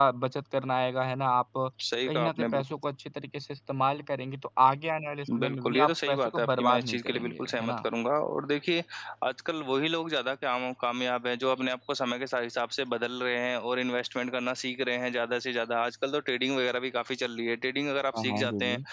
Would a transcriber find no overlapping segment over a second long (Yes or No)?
No